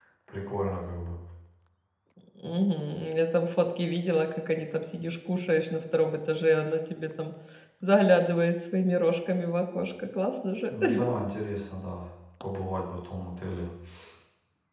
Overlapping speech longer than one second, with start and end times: none

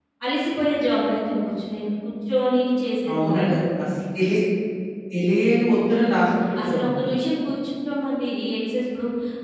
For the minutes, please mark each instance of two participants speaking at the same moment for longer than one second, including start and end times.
none

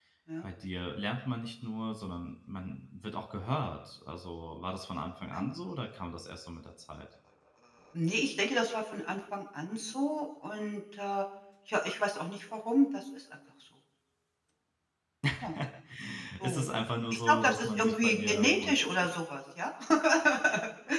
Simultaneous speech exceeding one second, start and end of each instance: 17.1-19.1

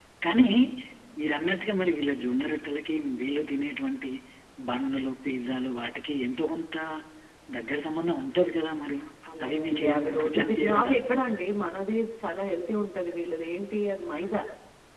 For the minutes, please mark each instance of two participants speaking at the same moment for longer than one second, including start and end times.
9.4-10.9

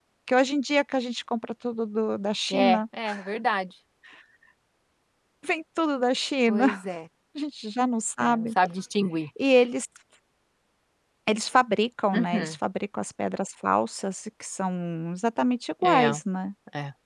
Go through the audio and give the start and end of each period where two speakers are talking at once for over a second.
none

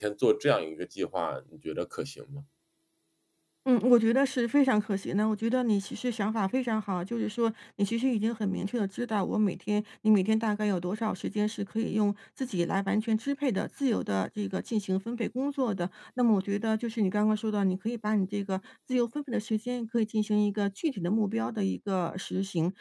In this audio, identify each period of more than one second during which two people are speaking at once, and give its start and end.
none

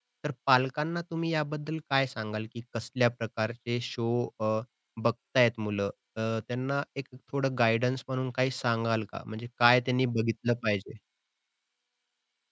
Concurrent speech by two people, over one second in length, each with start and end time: none

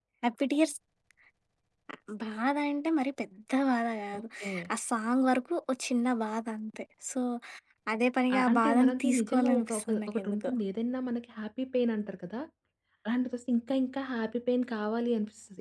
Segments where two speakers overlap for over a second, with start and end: 8.4-10.5

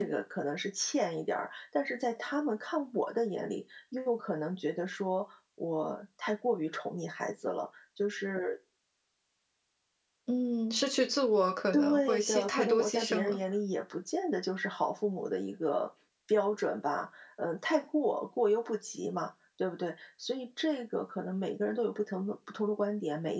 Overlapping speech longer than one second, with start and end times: 11.7-13.4

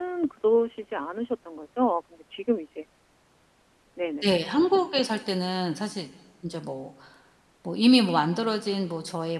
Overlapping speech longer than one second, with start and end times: none

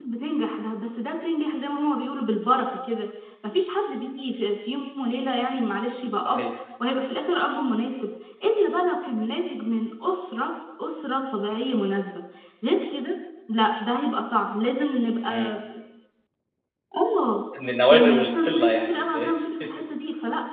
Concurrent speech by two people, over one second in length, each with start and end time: 17.9-19.3

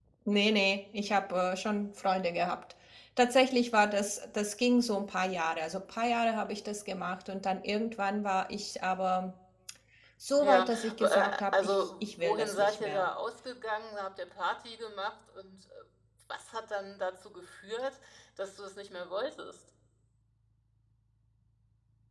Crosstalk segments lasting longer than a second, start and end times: 10.4-13.0

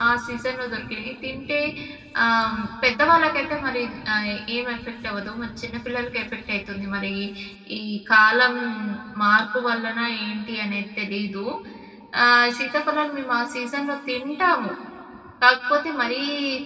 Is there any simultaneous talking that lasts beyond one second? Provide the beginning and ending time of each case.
none

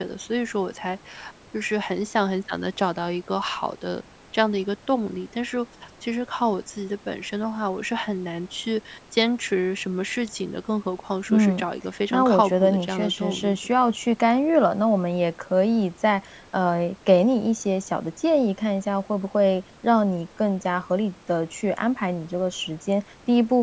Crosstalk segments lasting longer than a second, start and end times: 12.1-13.6

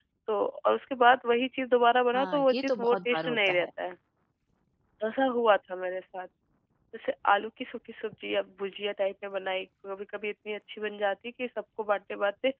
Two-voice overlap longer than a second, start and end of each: 2.1-3.7

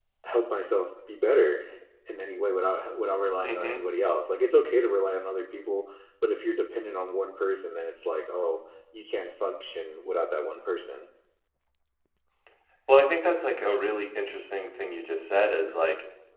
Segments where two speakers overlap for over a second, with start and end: none

